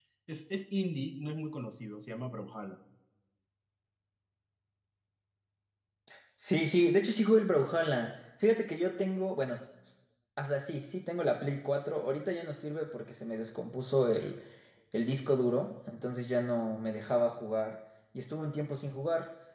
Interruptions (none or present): none